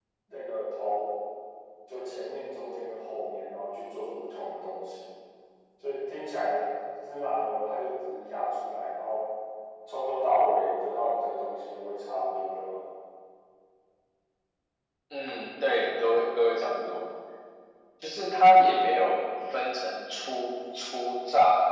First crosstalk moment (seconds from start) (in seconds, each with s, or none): none